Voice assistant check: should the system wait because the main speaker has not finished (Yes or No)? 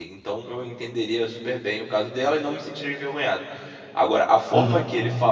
Yes